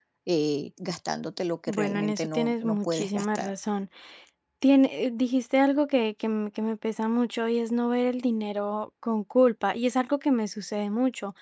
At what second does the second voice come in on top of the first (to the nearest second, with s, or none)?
2 s